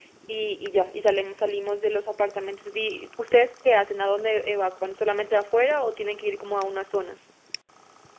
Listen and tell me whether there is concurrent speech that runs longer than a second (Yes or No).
No